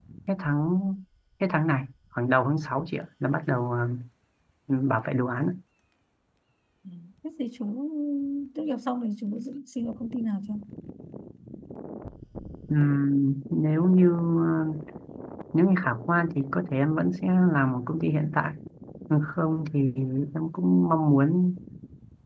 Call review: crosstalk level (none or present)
none